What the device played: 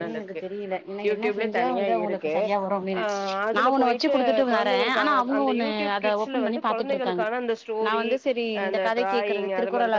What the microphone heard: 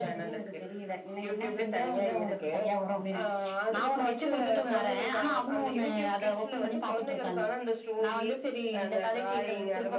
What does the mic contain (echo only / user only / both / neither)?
echo only